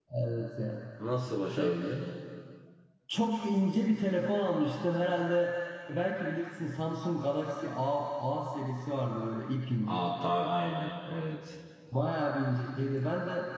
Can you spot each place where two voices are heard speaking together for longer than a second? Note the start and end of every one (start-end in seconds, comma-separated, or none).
none